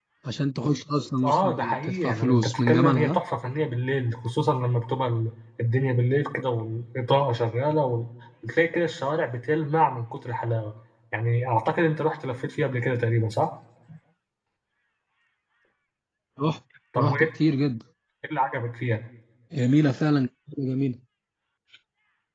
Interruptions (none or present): present